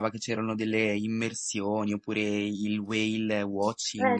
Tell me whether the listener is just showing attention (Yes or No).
No